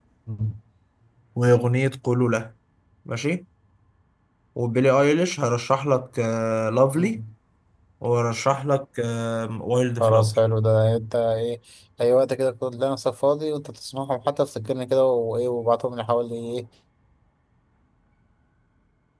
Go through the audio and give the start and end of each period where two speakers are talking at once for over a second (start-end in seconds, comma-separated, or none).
none